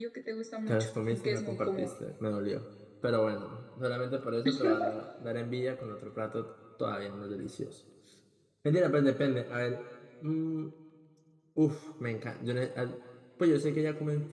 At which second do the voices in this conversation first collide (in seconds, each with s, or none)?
0.7 s